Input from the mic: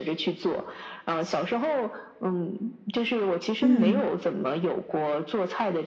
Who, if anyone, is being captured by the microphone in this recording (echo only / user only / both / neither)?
both